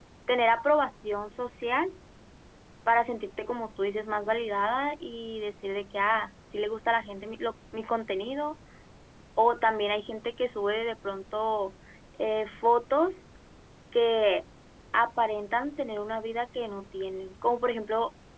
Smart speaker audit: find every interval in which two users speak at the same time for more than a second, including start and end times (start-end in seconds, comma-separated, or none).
none